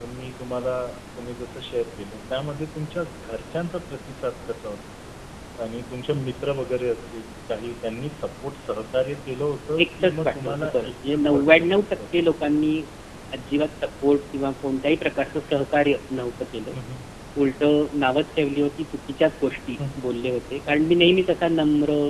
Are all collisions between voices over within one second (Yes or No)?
No